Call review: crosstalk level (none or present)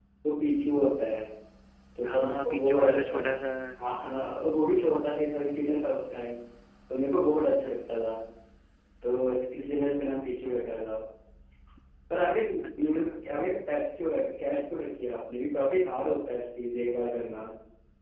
present